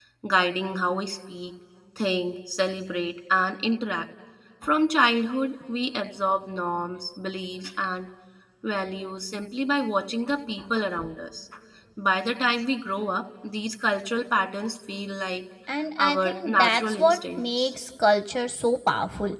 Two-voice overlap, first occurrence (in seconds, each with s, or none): 16.0 s